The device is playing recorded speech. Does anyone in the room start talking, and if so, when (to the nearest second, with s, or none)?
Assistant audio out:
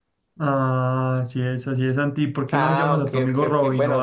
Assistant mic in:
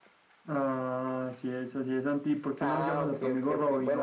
none